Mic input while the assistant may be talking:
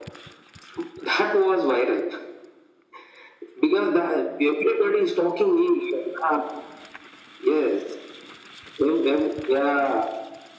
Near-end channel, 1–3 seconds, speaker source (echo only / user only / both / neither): echo only